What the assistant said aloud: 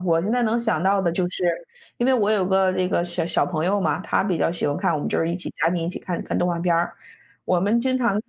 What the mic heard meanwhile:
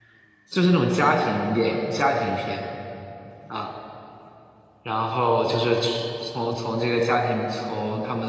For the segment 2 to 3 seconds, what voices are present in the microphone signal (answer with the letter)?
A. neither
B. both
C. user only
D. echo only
C